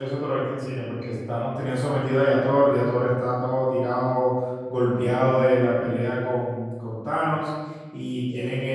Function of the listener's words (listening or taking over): listening